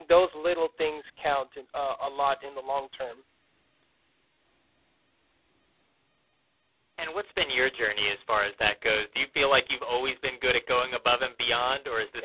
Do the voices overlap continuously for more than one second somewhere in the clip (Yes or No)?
No